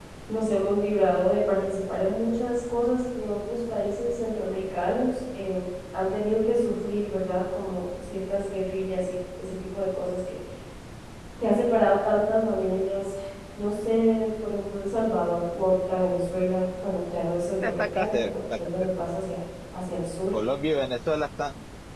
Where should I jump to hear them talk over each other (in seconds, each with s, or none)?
17.6 s